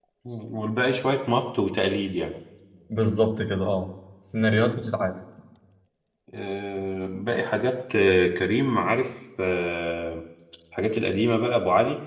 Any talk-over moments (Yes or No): No